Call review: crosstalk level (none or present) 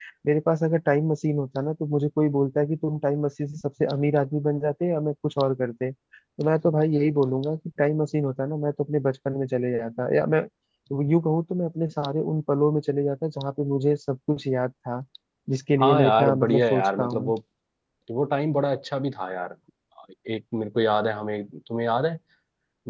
present